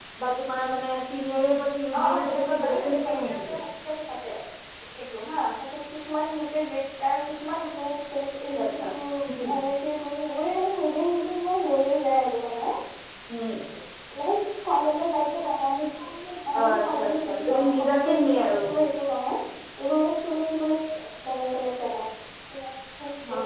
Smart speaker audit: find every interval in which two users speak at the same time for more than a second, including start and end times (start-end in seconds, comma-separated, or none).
2.0-3.6, 16.6-18.6